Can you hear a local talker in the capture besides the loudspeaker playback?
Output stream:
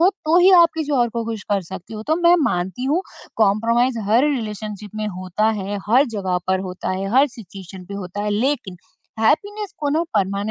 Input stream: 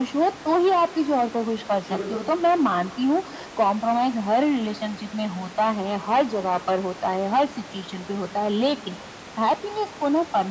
Yes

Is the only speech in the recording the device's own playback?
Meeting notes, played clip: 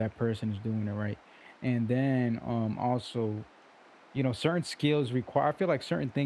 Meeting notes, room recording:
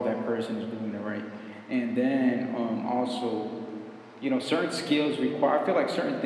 Yes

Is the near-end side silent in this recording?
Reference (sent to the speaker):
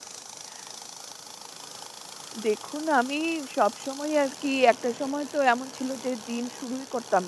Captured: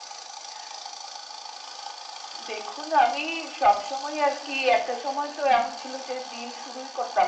Yes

